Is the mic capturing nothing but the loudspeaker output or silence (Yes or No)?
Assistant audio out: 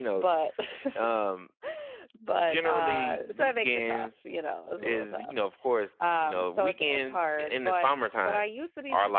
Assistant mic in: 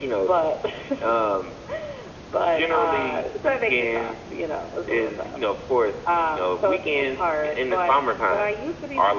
Yes